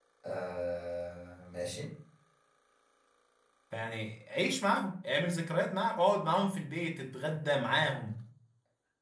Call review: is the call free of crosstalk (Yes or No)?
Yes